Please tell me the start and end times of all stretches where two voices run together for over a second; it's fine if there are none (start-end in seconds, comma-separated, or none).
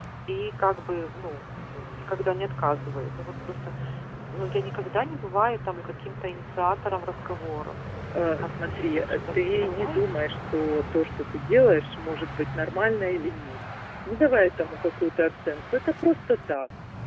8.4-10.1